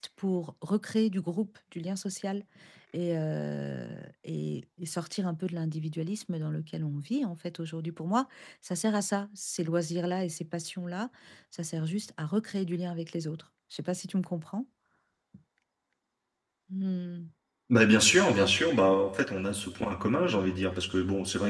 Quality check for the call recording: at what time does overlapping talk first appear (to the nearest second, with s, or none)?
none